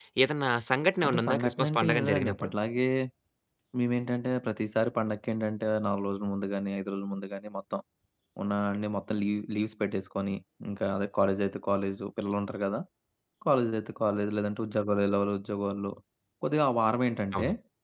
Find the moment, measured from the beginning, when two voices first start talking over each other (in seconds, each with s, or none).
1.0 s